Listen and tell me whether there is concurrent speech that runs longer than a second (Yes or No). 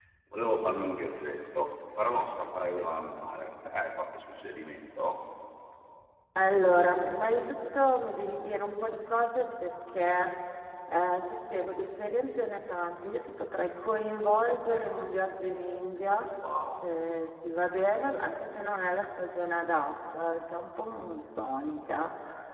No